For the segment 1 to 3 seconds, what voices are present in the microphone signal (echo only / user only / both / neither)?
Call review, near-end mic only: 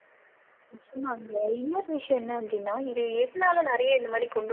echo only